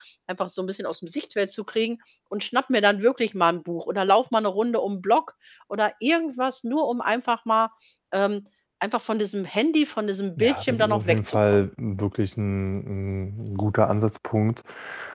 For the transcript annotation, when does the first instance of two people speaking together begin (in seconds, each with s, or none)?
10.4 s